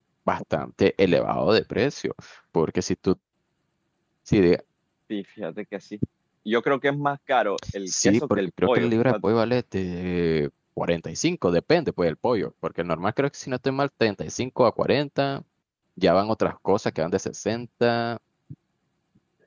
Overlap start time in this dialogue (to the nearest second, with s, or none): 8 s